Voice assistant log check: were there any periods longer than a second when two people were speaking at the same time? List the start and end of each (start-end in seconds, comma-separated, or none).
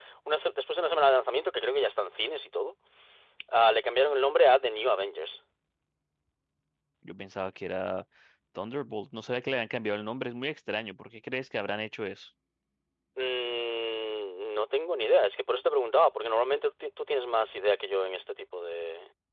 none